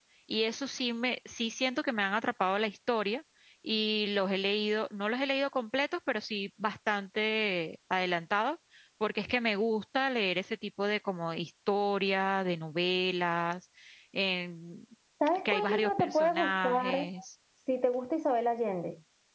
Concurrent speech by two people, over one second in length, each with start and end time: 15.4-17.0

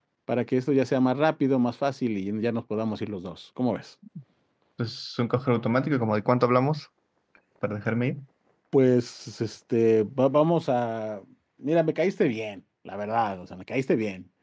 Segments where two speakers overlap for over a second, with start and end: none

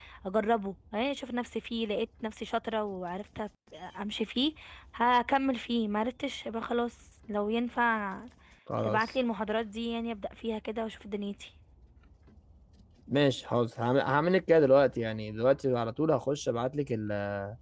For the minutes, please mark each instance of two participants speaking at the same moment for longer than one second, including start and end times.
none

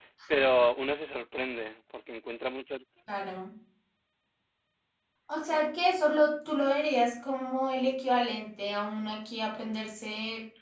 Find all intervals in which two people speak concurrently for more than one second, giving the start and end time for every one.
none

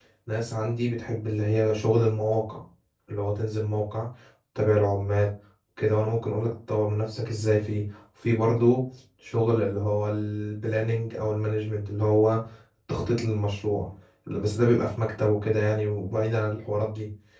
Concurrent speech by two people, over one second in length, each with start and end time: none

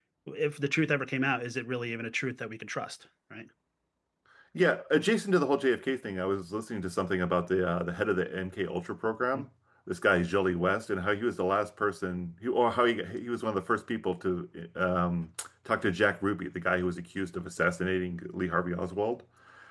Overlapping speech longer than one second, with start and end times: none

